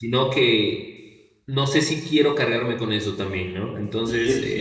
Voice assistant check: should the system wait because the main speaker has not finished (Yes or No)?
No